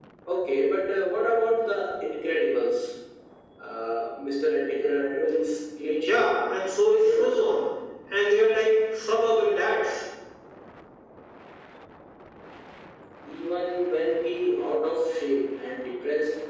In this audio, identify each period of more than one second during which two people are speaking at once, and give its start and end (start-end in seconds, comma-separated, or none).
none